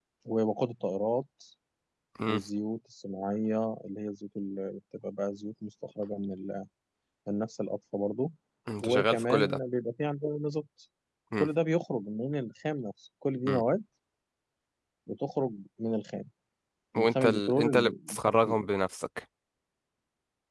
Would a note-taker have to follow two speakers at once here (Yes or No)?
Yes